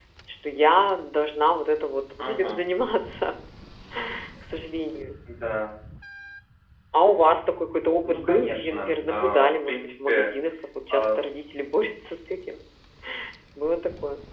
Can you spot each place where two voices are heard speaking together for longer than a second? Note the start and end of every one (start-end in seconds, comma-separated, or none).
8.1-10.3